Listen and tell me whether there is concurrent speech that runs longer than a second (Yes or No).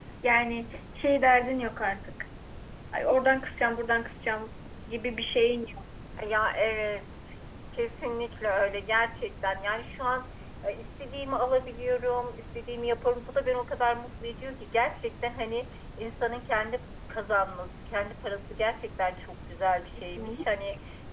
No